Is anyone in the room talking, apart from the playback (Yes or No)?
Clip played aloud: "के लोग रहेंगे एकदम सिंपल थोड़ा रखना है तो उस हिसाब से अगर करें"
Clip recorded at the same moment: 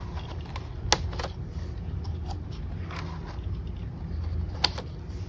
No